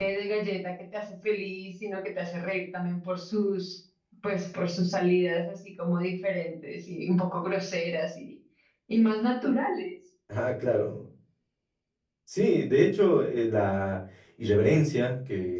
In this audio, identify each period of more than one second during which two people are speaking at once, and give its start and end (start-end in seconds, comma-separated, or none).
none